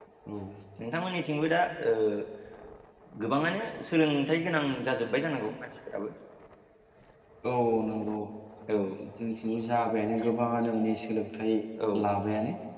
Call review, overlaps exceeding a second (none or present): none